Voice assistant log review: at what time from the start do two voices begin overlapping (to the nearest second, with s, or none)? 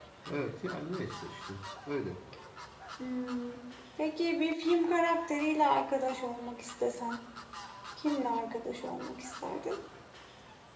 none